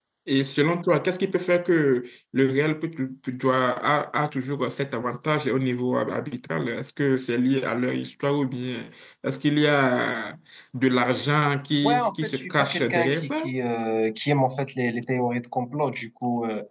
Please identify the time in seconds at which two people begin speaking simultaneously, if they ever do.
12 s

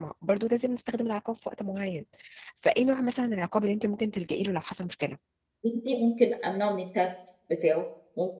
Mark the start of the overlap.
none

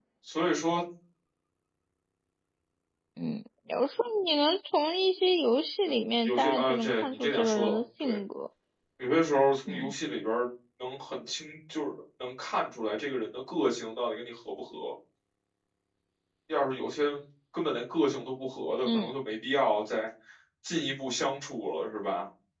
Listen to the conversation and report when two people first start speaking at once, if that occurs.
6 s

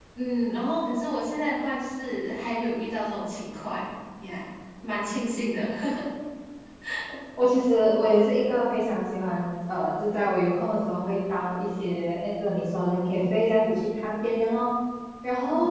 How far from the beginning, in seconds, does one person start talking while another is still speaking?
none

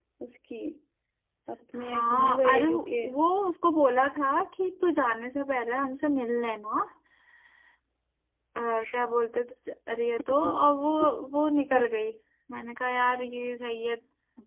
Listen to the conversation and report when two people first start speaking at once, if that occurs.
2 s

